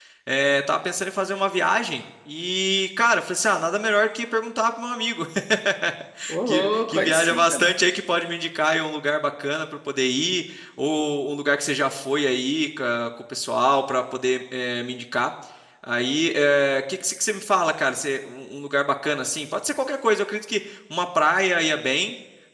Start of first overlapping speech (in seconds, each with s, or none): 6.5 s